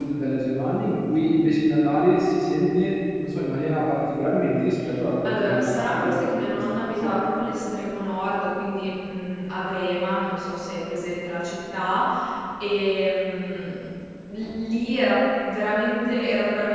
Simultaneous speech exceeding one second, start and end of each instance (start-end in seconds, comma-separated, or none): 5.2-7.2